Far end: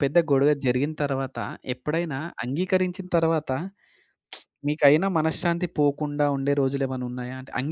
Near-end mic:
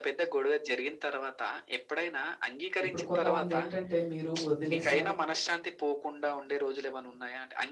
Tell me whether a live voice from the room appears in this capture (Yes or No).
Yes